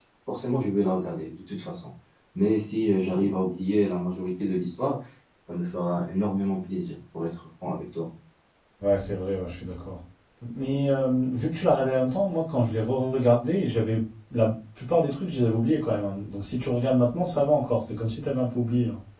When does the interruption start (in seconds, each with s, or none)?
none